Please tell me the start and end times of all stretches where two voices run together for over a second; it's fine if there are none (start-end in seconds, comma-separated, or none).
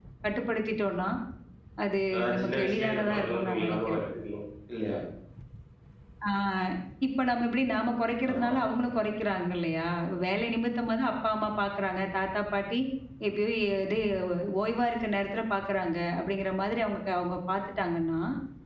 2.1-4.0